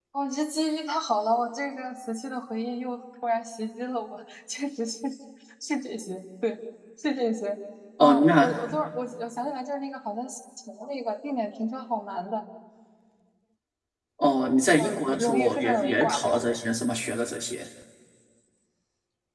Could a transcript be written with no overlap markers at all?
No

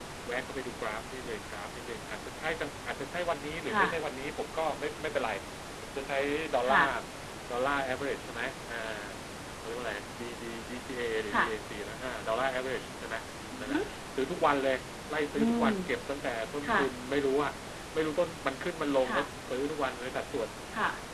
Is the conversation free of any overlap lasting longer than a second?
Yes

